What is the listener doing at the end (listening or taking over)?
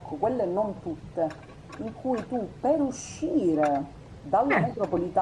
listening